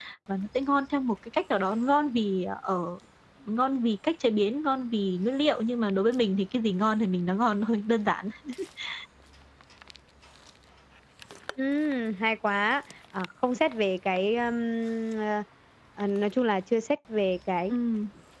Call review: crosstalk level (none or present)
none